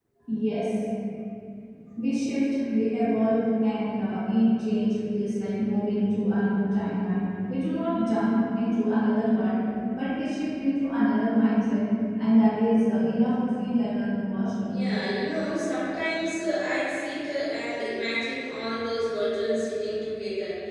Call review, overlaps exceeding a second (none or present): none